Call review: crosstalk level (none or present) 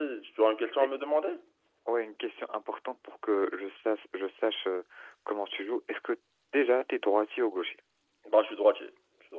none